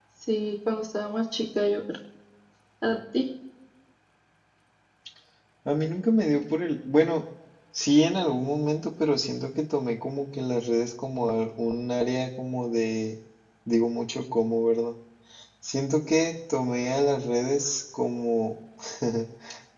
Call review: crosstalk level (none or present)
none